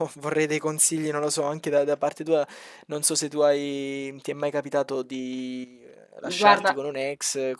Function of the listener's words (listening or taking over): listening